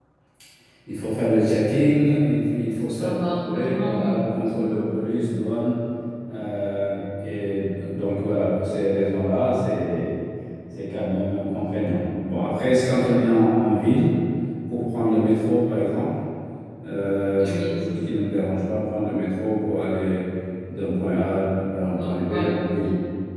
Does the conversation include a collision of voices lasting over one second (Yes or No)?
Yes